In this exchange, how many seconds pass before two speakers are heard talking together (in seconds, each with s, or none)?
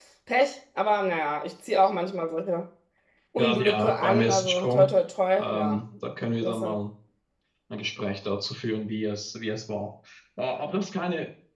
3.4 s